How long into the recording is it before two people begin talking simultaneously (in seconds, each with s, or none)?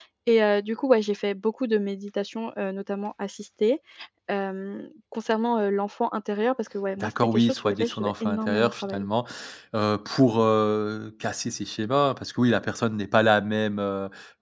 7.0 s